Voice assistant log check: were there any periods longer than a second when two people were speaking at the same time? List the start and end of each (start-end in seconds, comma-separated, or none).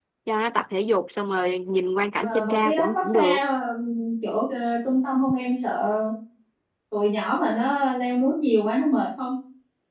2.2-3.4